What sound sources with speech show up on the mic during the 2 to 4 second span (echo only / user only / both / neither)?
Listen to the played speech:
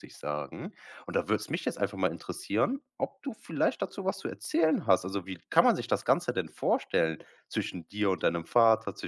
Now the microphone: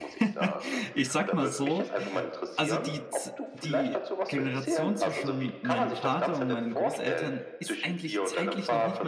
both